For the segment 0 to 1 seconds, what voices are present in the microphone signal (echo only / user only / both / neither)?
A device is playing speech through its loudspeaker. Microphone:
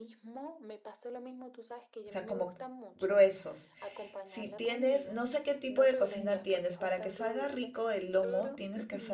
echo only